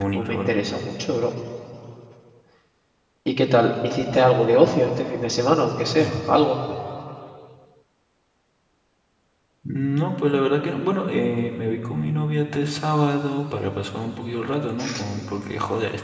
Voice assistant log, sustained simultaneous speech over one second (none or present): none